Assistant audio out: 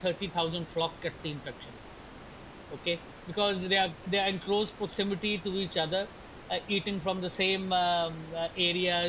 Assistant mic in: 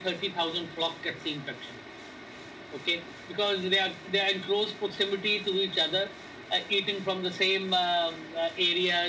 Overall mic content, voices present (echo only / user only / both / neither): echo only